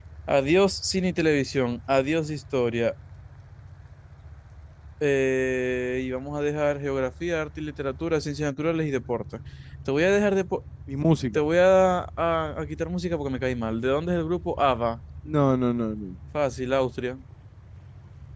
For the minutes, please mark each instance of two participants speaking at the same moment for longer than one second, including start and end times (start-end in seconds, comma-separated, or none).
none